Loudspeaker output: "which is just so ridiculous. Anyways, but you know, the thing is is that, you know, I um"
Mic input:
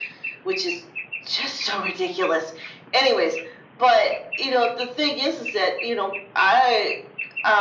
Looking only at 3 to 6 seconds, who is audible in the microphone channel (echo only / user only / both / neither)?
echo only